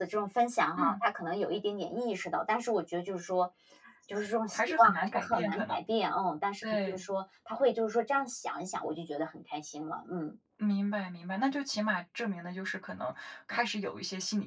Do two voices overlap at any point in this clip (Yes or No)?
Yes